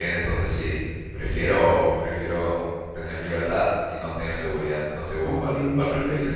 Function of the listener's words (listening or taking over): taking over